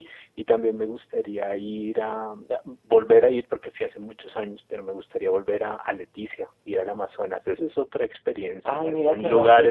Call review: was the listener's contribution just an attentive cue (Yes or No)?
No